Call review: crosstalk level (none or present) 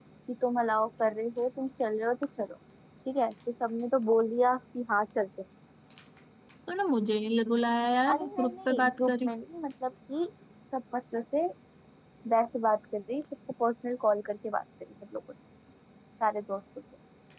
present